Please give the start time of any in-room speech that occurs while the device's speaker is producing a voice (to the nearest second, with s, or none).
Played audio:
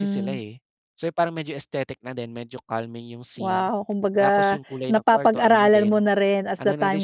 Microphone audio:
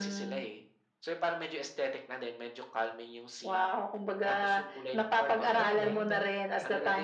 6 s